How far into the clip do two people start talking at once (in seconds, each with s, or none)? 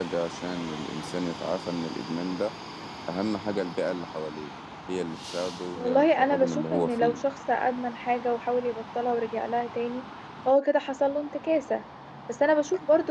5.8 s